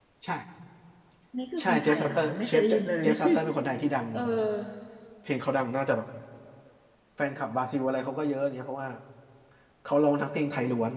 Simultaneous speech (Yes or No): Yes